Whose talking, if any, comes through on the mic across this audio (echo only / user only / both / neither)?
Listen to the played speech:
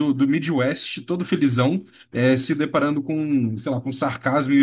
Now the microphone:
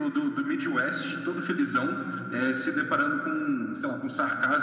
echo only